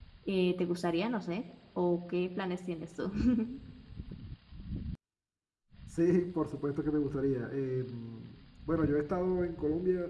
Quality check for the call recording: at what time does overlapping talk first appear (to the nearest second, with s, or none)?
none